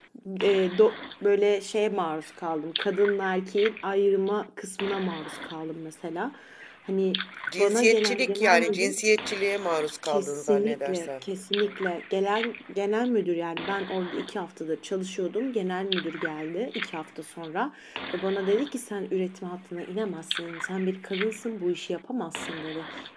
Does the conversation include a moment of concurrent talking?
Yes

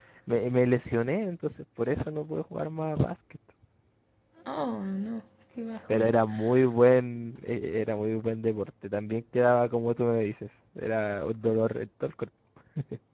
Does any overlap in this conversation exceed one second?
No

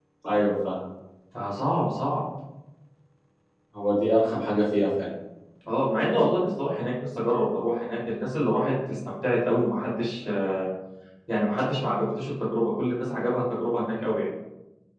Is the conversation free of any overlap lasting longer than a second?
Yes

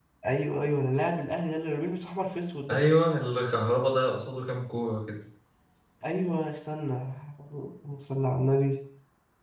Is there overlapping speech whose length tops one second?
No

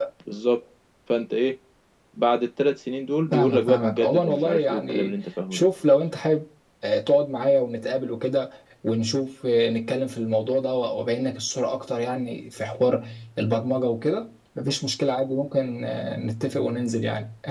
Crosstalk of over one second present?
Yes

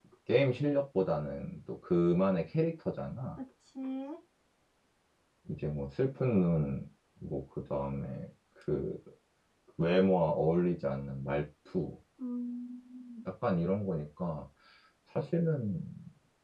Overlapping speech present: No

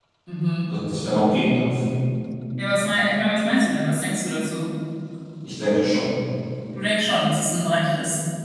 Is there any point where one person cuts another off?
No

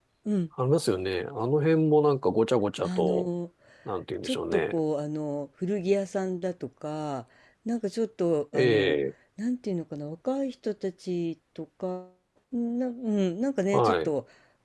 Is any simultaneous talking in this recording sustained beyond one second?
No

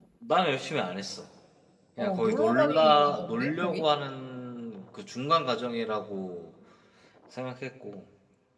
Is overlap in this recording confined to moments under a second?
No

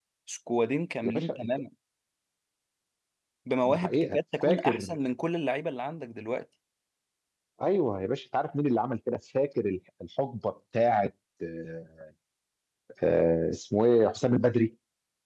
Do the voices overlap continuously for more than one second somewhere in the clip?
Yes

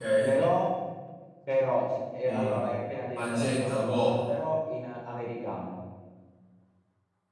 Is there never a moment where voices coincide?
No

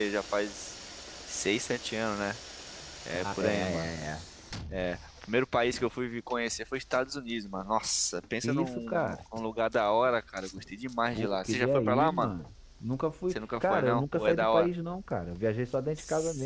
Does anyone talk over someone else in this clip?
Yes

